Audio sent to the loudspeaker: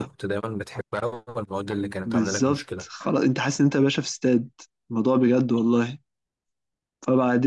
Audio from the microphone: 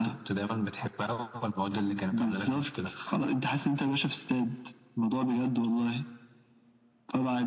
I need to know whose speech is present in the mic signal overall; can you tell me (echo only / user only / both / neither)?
echo only